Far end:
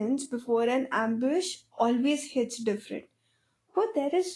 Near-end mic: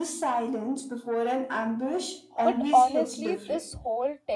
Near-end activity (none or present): present